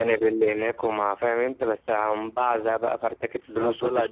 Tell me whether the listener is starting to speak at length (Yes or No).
Yes